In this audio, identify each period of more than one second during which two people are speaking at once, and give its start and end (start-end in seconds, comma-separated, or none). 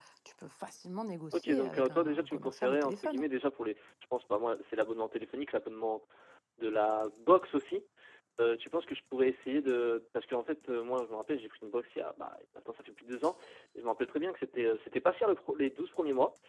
1.3-3.2